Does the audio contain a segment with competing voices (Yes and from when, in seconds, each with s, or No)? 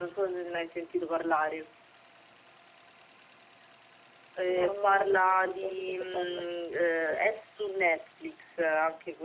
Yes, from 4.5 s